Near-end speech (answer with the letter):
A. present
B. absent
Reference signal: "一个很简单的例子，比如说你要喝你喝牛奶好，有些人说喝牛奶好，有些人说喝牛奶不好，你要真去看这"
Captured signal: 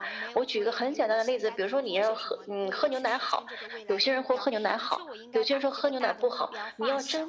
A